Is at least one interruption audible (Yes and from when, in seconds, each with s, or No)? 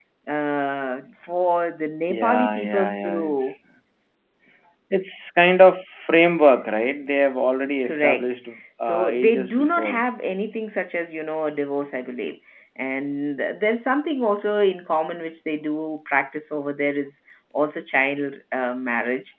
Yes, from 2.1 s